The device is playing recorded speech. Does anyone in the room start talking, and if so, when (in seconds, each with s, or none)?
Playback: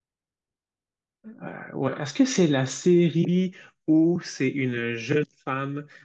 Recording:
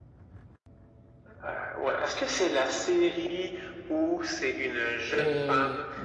5.1 s